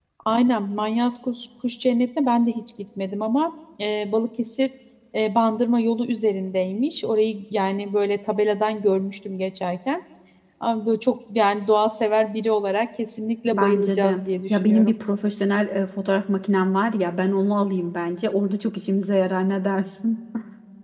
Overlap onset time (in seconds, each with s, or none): 13.5 s